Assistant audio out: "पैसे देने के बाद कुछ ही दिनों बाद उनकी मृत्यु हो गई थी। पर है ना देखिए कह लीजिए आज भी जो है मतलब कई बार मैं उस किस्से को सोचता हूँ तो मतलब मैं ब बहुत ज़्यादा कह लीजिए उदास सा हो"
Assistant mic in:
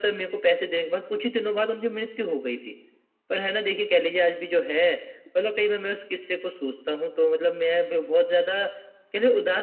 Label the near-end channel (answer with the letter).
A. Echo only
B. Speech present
A